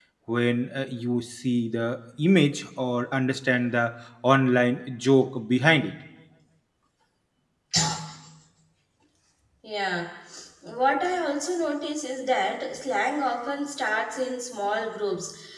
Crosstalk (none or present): none